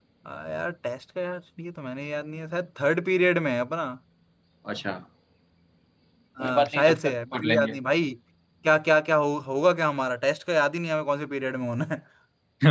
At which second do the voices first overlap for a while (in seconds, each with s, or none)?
6.4 s